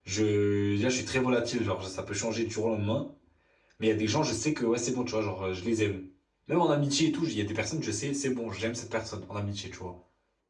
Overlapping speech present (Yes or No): No